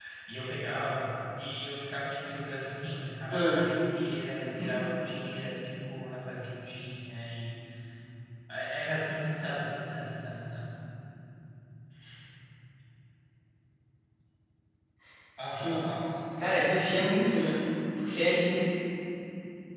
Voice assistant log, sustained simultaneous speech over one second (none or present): none